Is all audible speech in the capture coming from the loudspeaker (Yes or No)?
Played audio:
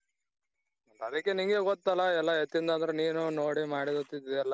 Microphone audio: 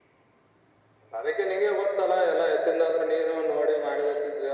Yes